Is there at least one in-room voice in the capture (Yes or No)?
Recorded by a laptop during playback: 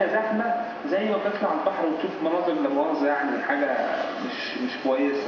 No